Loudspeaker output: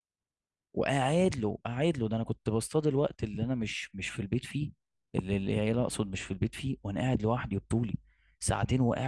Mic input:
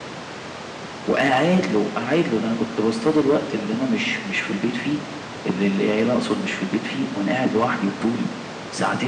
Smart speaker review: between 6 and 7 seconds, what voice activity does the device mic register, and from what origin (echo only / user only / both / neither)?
echo only